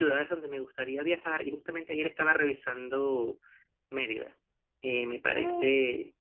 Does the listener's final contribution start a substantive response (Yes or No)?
No